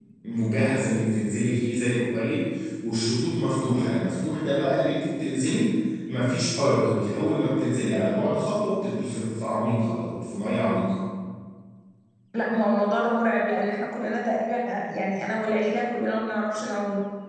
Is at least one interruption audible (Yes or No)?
No